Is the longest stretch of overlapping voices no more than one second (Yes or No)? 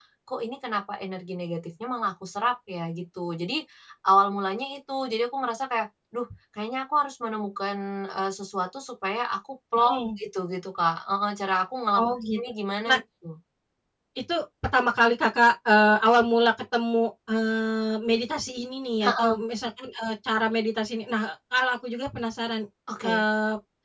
Yes